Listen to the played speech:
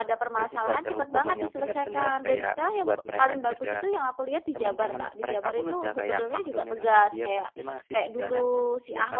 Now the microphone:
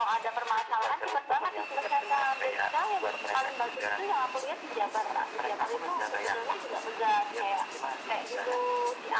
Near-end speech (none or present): none